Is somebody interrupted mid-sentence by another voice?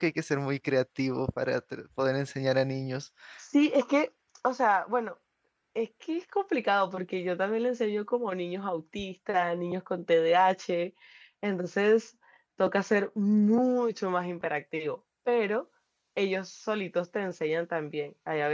No

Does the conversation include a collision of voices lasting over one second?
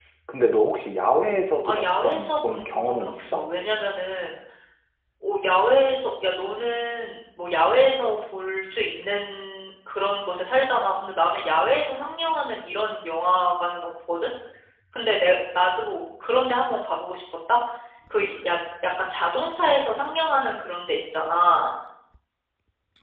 Yes, from 1.6 s

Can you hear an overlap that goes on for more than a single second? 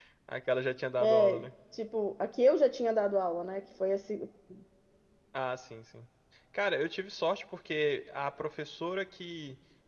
No

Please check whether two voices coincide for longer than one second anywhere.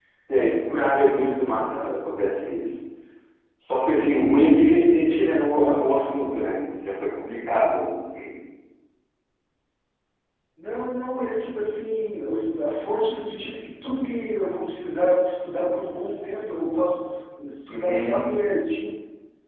Yes, from 0.5 s

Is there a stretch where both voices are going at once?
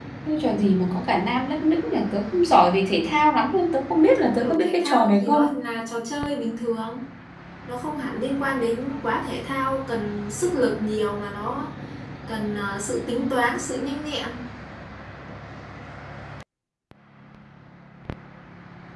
Yes, from 4.2 s

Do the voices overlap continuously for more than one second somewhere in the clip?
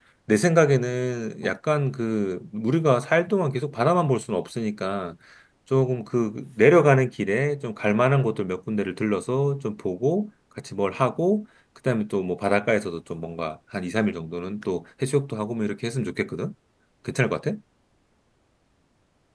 No

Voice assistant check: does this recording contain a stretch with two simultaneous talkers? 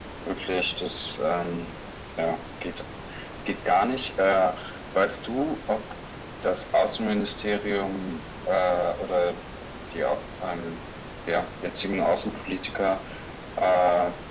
No

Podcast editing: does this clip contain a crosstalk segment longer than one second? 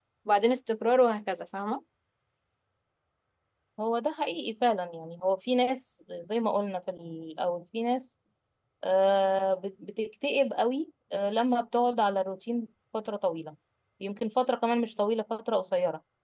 No

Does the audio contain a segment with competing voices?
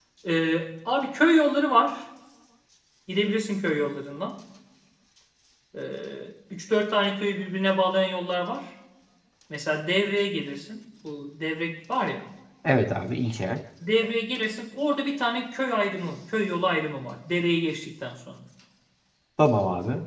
No

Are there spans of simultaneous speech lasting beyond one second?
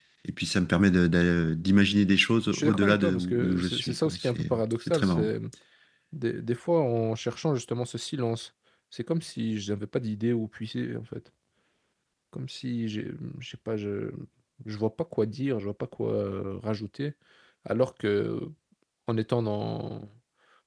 Yes, from 2.5 s

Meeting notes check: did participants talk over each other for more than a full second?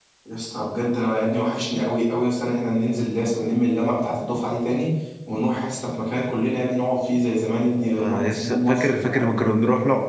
Yes, from 8.0 s

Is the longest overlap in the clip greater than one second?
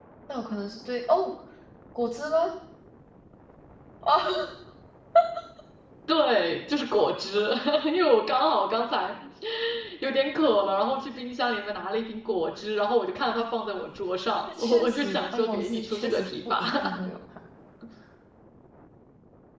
Yes, from 14.5 s

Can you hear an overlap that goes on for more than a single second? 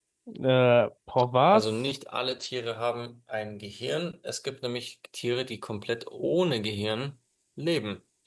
No

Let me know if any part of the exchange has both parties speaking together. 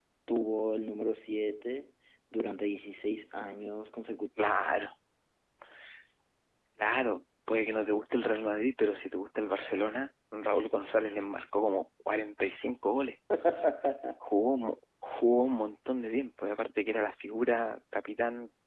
No

